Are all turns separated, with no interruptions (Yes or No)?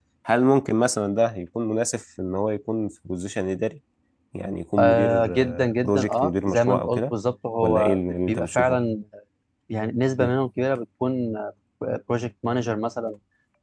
No